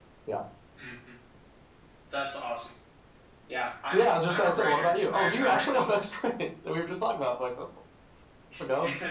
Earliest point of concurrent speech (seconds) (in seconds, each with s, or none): 3.9 s